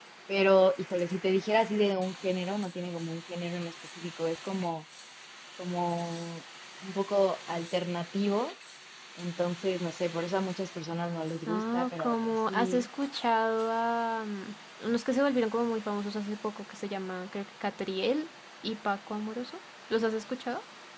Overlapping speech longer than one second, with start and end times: 11.5-12.9

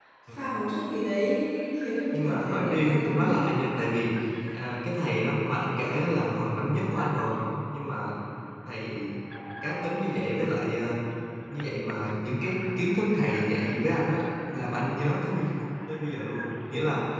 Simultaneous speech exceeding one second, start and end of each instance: 2.1-3.5

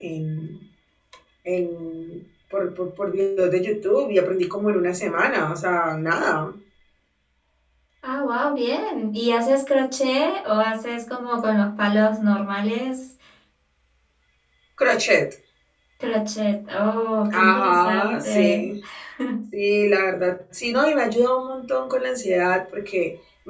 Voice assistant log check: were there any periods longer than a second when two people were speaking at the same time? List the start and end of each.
17.3-18.7

